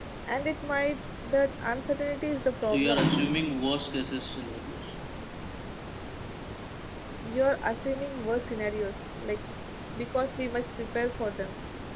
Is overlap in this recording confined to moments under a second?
Yes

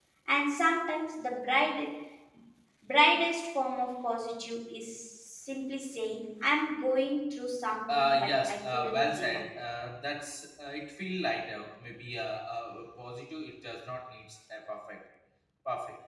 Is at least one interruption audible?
Yes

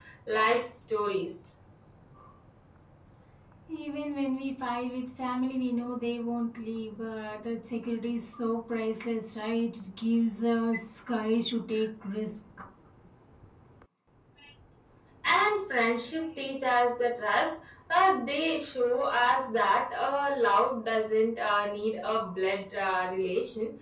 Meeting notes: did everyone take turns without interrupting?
Yes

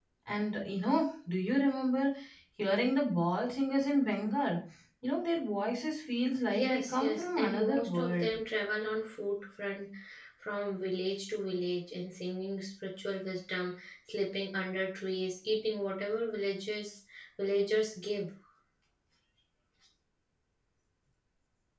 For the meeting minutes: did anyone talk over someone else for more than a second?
Yes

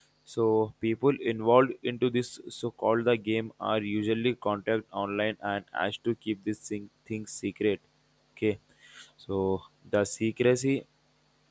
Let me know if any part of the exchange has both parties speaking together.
No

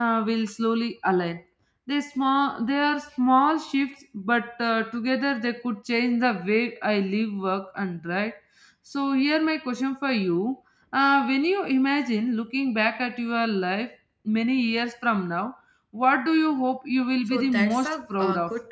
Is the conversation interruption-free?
No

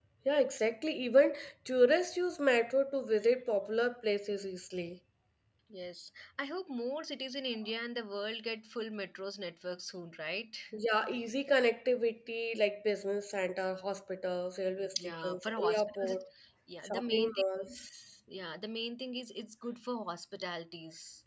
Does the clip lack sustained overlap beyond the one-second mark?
No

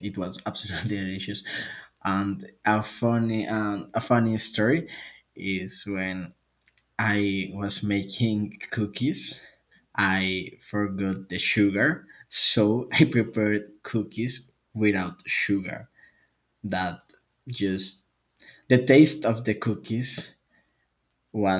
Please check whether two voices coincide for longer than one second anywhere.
No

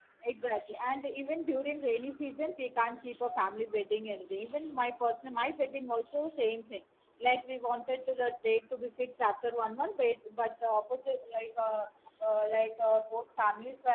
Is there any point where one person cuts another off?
No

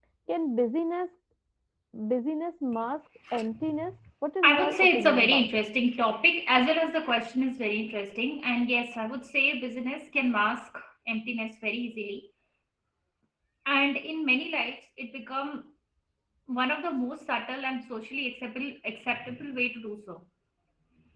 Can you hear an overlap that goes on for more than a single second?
Yes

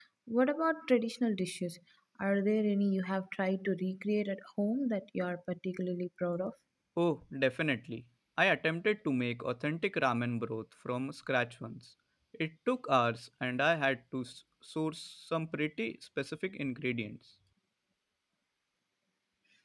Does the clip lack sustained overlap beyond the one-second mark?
Yes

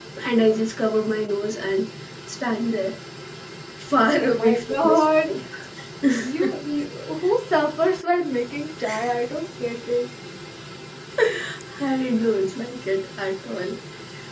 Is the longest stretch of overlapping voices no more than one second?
No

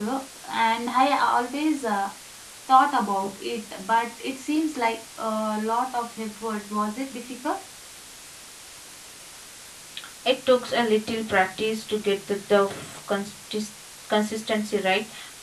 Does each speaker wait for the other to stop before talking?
Yes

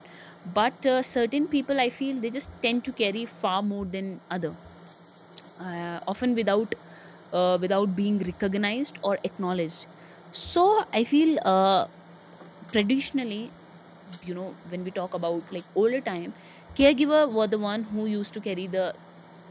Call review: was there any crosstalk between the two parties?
No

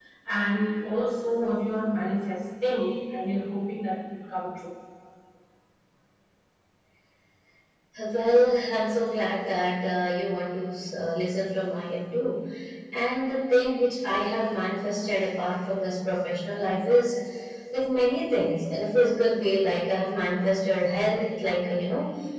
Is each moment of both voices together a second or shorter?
Yes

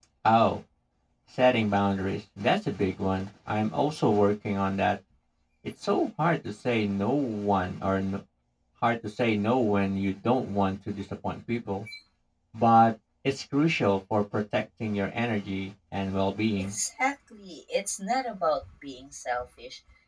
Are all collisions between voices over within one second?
Yes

